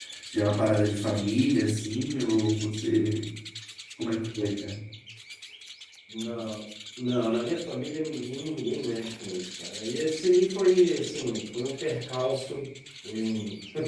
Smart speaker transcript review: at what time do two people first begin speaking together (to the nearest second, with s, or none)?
none